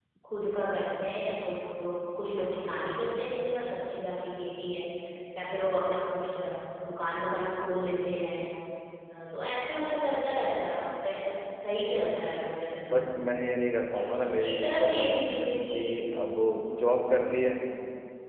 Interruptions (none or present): present